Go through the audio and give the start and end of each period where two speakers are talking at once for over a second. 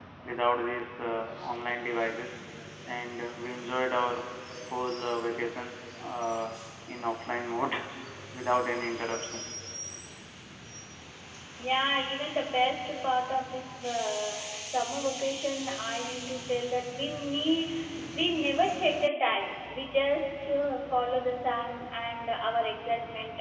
none

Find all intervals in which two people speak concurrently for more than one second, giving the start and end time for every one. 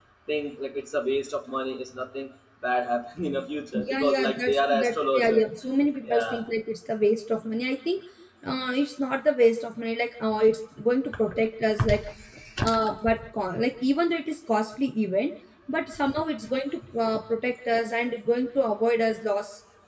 3.7-5.4

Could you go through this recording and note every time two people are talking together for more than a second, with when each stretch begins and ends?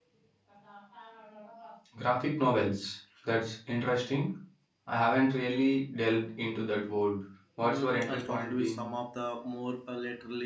7.6-8.8

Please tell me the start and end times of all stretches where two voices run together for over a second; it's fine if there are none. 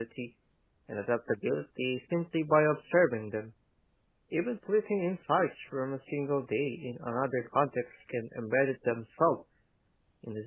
none

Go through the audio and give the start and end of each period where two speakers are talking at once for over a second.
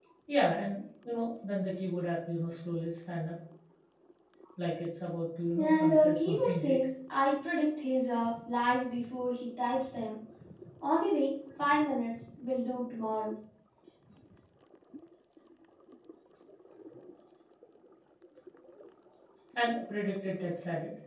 5.6-6.8

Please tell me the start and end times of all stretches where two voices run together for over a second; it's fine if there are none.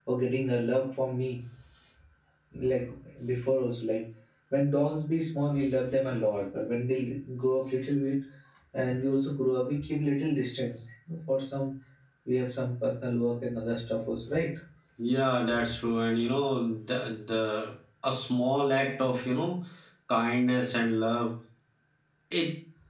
none

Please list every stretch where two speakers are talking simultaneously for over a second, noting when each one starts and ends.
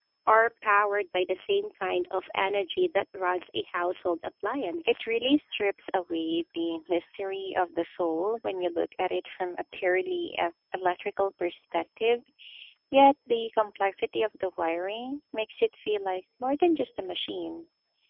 none

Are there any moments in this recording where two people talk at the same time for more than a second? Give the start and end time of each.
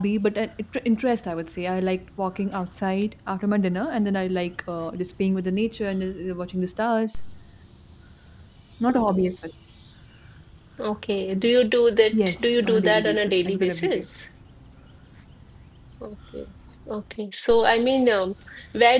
12.1-14.1

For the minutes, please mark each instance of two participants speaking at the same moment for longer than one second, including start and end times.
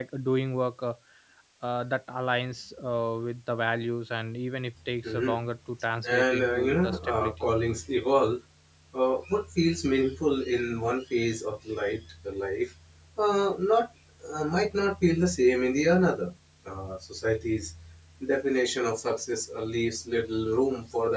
6.1-7.3

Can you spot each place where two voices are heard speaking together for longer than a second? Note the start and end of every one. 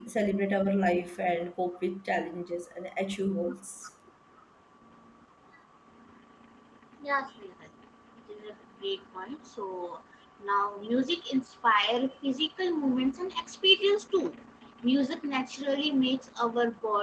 none

